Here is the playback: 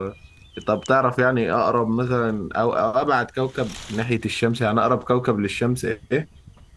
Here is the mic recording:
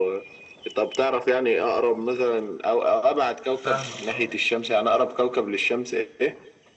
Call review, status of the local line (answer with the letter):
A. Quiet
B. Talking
B